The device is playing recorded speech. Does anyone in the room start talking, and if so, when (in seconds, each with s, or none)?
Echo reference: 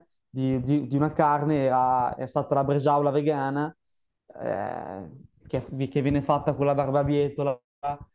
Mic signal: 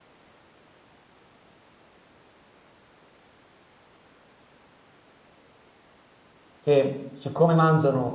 6.6 s